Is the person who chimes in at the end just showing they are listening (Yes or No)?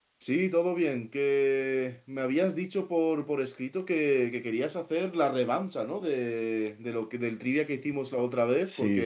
No